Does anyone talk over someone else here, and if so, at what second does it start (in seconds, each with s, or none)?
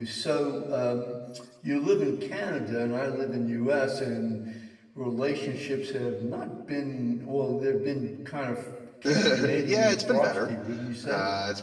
9.0 s